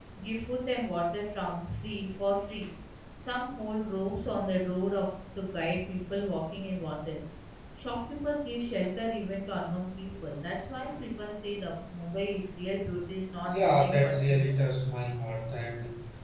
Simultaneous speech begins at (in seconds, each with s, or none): 13.4 s